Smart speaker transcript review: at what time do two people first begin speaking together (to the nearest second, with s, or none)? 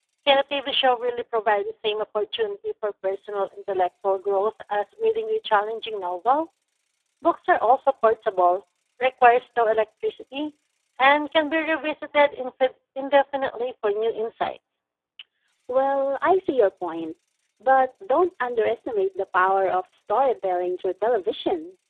none